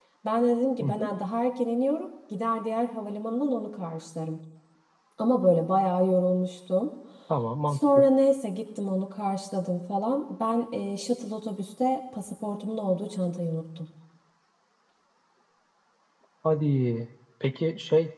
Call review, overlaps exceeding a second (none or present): none